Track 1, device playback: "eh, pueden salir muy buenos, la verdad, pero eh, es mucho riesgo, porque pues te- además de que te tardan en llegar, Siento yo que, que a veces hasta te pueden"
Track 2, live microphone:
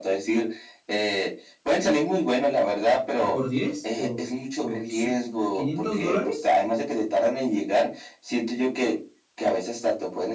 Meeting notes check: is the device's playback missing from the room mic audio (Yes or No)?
No